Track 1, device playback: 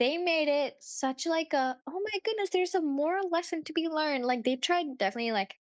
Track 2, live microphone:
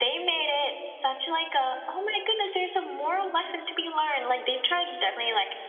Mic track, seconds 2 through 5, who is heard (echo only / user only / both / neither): echo only